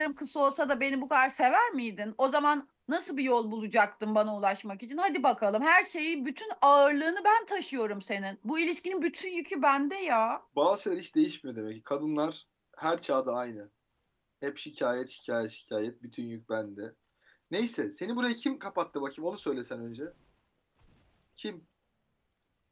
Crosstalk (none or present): none